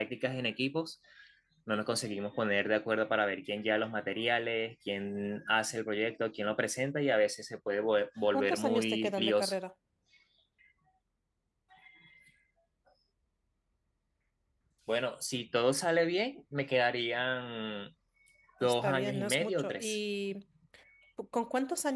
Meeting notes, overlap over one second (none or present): present